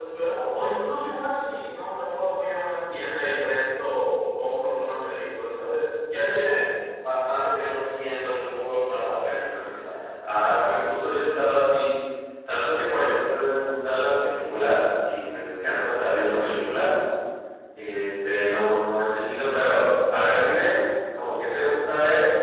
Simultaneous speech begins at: none

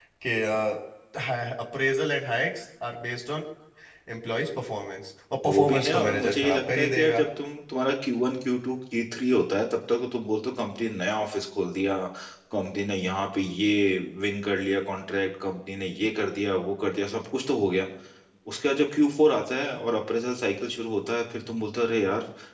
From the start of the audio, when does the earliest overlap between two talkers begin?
5.5 s

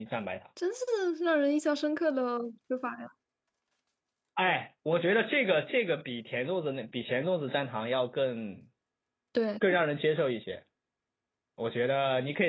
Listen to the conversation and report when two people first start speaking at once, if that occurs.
none

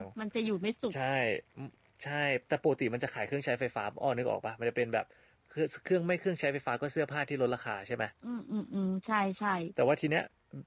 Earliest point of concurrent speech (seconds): none

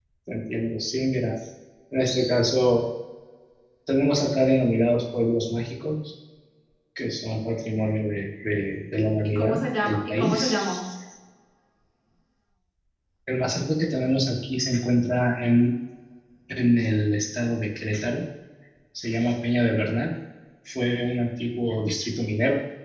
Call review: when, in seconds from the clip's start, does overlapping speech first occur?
9.4 s

